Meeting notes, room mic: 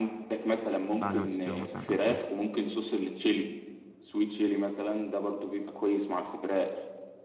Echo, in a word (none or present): present